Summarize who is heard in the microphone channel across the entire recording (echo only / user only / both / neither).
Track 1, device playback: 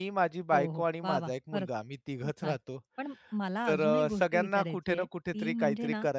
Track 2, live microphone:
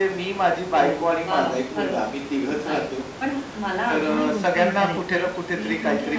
echo only